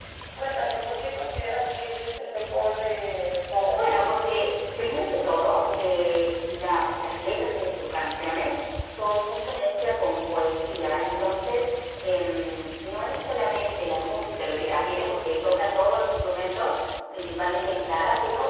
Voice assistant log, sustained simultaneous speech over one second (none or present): none